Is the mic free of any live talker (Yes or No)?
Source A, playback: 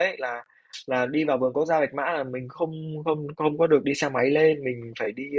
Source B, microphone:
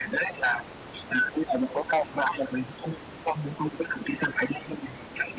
Yes